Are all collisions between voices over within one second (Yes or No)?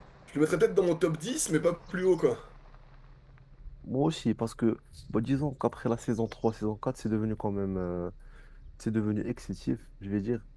Yes